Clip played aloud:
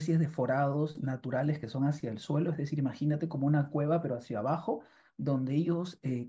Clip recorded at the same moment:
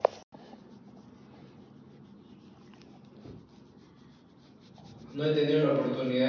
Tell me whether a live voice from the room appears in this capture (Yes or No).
Yes